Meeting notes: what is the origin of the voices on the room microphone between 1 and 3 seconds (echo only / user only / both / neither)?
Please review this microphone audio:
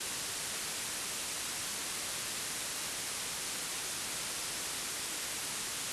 neither